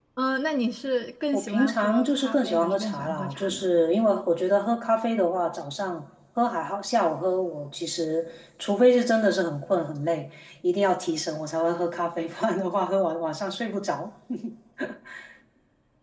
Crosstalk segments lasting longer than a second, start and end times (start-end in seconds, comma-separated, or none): 1.3-3.7